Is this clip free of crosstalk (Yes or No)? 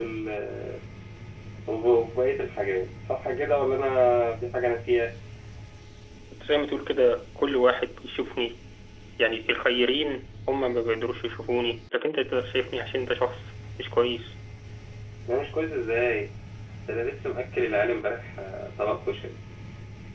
Yes